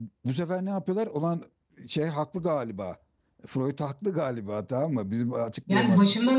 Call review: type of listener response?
taking over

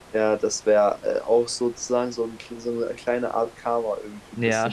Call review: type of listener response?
taking over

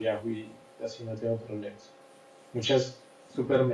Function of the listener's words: listening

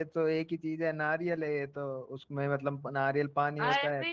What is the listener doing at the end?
listening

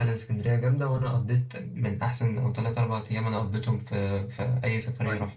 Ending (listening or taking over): taking over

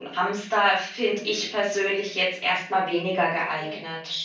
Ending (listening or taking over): taking over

